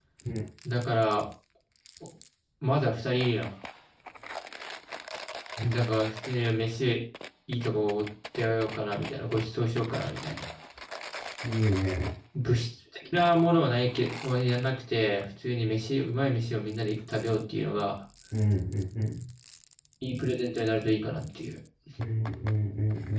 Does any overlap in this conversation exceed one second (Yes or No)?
No